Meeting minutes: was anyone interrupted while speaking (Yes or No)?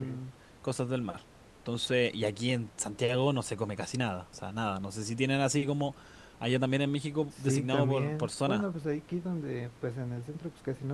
Yes